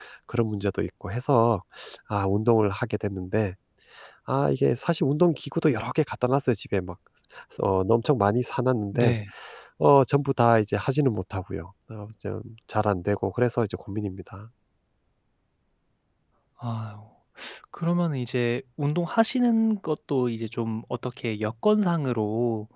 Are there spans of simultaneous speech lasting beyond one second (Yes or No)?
No